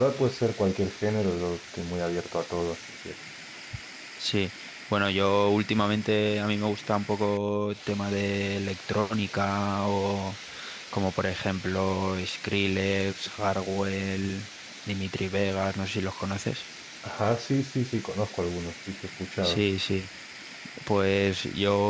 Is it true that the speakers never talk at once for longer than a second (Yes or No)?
Yes